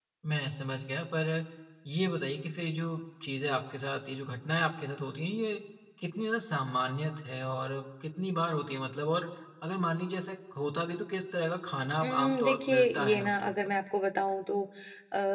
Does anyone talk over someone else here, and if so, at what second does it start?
12 s

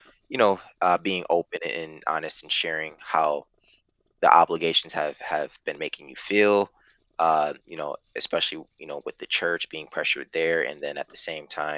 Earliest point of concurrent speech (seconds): none

